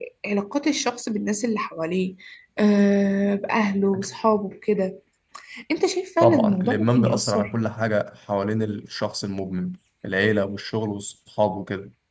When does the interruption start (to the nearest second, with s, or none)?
6 s